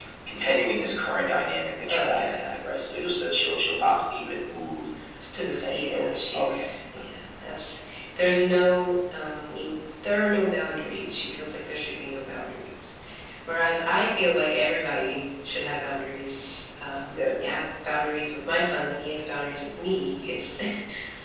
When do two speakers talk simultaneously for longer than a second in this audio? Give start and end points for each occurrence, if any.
5.3-6.7

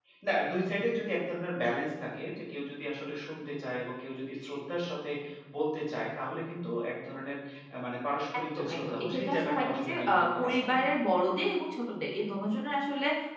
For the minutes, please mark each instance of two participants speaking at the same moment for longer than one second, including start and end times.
8.4-10.8

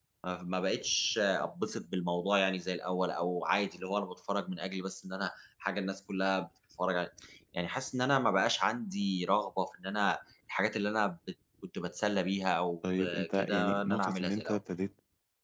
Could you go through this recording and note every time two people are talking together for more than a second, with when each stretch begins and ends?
13.0-14.6

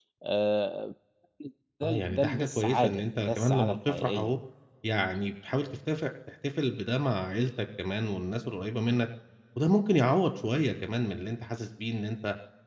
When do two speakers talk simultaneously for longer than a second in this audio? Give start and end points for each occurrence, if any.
1.8-4.3

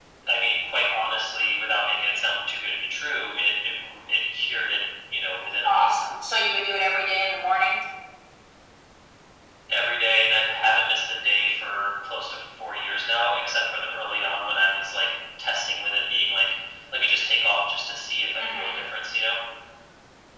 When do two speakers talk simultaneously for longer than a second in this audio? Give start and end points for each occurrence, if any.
none

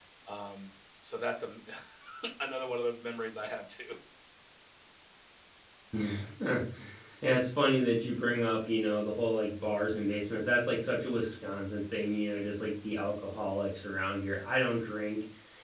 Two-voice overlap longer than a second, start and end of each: none

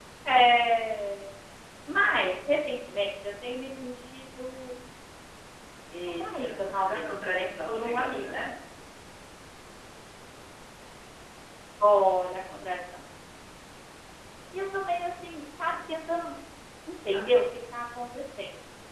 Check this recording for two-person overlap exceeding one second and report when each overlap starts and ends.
6.2-8.4

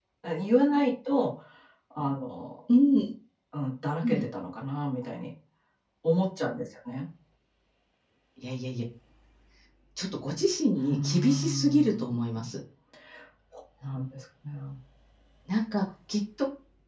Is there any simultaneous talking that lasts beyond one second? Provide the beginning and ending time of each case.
10.9-12.6

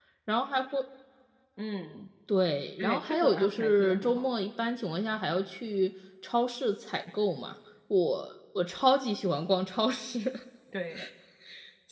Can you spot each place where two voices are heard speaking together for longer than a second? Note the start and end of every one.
2.8-4.2

